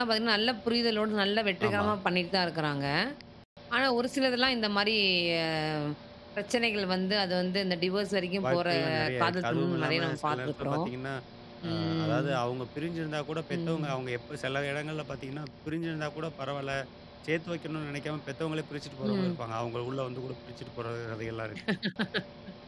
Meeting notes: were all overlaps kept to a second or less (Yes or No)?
No